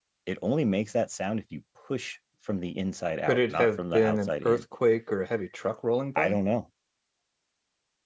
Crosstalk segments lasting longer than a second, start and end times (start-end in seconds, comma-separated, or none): 3.3-4.6